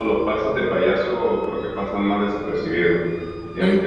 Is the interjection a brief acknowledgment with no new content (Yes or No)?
Yes